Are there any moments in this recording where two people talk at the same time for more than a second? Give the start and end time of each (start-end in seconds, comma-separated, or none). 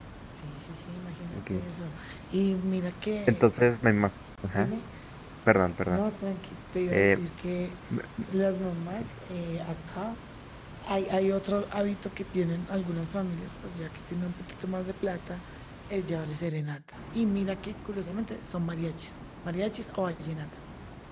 none